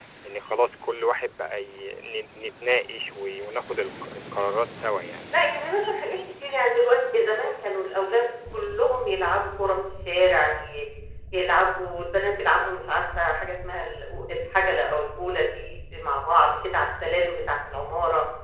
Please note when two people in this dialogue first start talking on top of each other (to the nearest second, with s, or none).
none